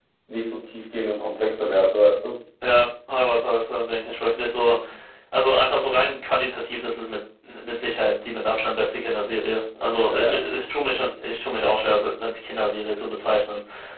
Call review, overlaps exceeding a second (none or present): none